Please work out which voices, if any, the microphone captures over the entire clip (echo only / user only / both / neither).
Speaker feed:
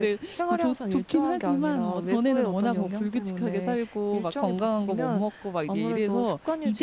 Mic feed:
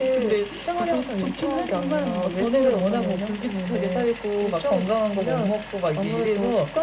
echo only